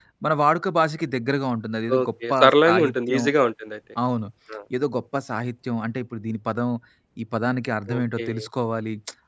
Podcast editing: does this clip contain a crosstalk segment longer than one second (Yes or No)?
Yes